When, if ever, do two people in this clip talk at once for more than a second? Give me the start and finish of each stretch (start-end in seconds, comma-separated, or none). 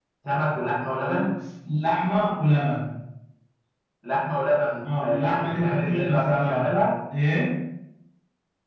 5.0-6.7